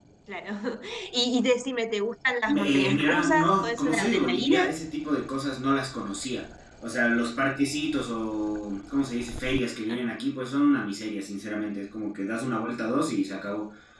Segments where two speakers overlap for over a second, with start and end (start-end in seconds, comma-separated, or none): 2.5-4.7